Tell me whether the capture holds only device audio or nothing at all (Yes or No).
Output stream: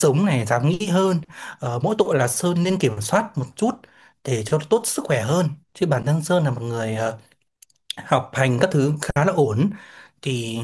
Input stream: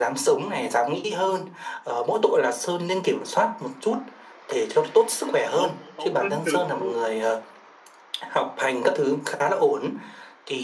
No